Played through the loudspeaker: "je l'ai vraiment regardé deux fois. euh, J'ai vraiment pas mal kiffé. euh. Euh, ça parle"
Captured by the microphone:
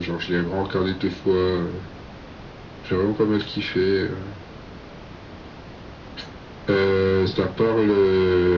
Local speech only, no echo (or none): none